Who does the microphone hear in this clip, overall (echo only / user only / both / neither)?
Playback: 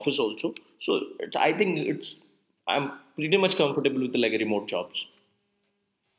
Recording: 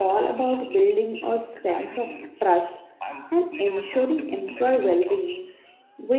both